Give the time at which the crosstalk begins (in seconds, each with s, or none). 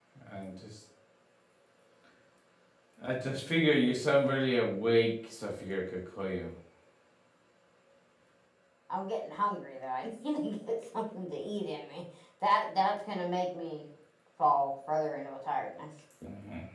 none